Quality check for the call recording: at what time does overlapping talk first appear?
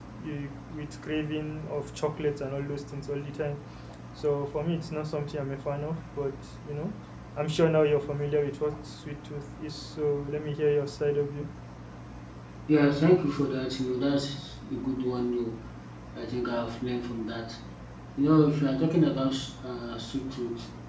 none

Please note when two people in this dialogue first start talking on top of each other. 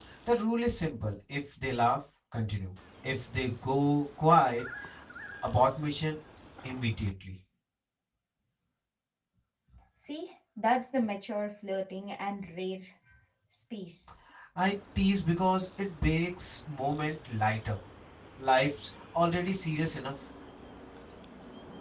none

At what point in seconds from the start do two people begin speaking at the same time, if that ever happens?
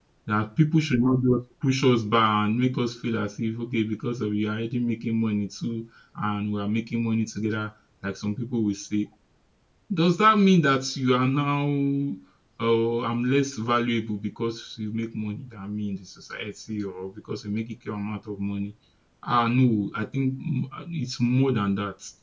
none

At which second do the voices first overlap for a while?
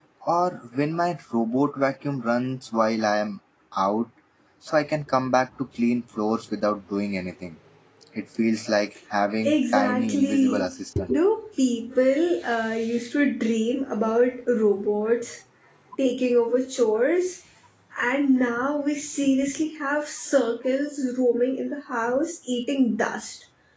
9 s

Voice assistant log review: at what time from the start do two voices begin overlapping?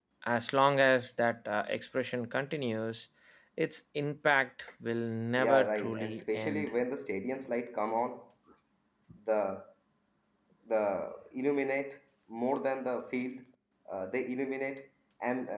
5 s

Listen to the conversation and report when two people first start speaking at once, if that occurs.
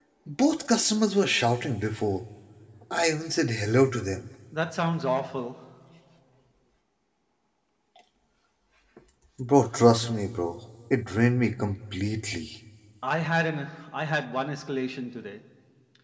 none

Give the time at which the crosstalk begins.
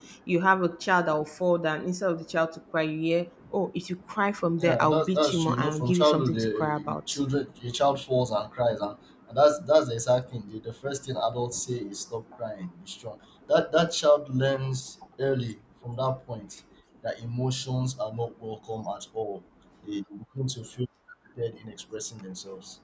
5 s

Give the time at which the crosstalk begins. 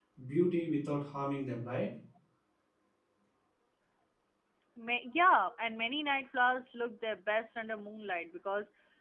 none

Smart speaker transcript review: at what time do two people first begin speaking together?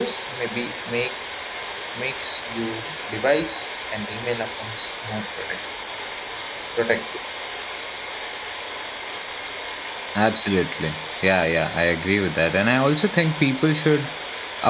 none

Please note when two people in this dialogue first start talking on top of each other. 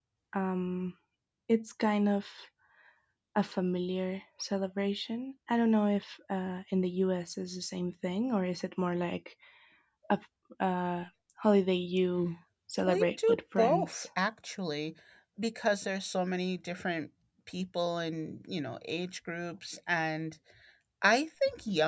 13 s

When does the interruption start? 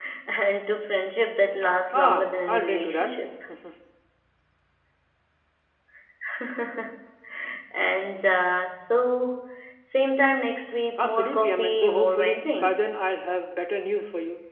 2 s

